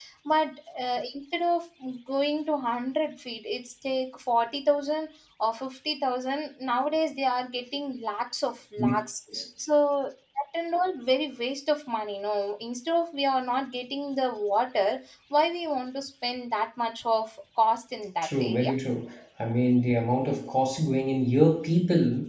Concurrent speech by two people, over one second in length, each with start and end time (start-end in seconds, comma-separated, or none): none